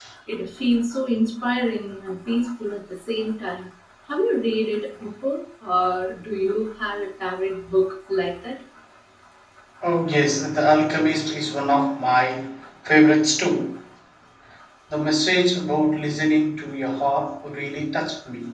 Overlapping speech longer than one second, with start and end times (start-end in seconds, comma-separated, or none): none